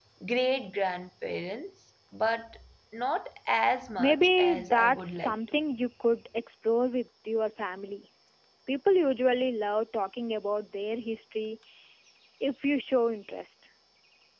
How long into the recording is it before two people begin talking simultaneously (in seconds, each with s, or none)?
4.0 s